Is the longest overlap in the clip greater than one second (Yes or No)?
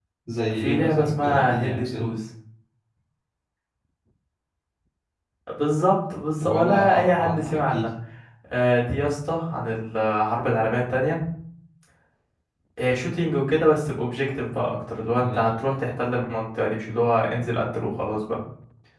Yes